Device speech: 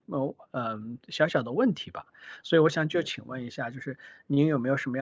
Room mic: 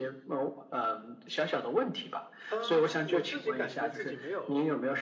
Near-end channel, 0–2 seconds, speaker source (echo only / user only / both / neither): echo only